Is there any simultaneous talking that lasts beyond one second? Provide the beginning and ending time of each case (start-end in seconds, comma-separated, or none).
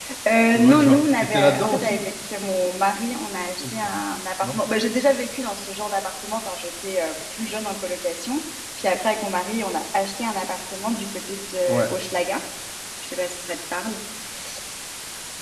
0.5-2.0